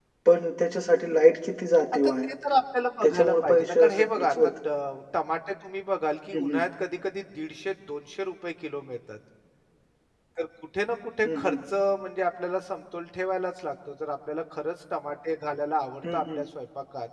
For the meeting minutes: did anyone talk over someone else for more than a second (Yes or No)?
Yes